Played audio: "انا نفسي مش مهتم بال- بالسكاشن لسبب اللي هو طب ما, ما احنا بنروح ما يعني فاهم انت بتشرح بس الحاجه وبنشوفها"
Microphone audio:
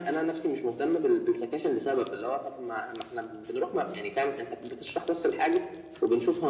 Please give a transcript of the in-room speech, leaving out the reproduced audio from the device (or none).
none